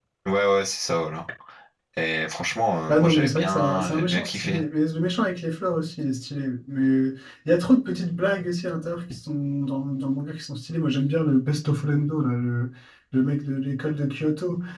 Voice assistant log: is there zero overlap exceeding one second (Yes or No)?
No